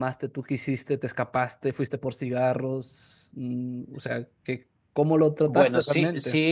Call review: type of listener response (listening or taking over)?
taking over